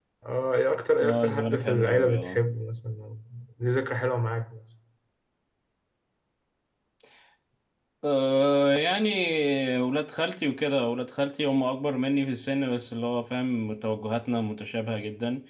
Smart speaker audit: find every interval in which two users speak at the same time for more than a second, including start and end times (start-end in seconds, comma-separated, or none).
1.0-2.4